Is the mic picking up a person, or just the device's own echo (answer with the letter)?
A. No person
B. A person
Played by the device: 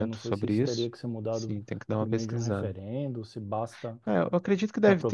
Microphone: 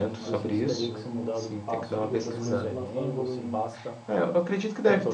B